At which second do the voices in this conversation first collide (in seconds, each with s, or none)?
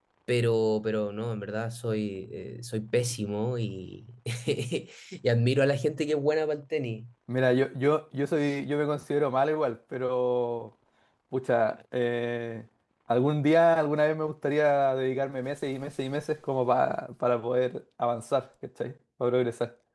none